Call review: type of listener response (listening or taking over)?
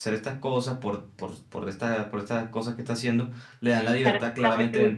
taking over